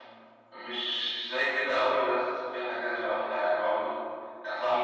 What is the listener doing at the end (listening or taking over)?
listening